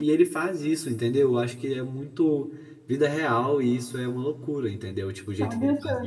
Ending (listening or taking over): taking over